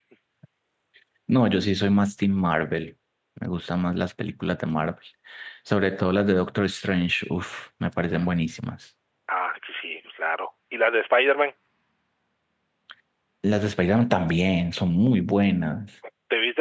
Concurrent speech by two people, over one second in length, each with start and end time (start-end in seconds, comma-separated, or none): none